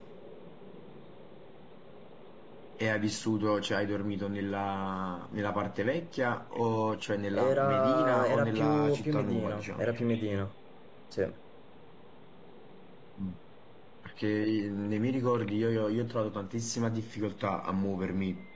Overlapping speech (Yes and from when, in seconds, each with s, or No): Yes, from 7.3 s